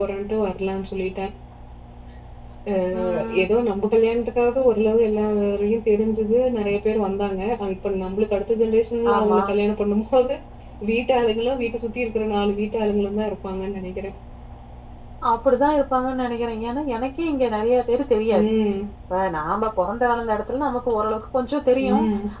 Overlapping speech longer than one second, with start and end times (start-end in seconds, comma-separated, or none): none